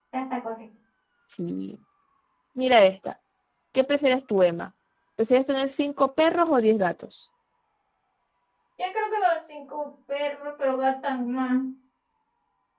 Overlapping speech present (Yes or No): No